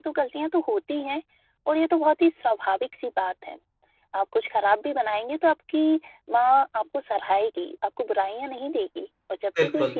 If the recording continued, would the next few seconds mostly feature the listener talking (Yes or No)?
No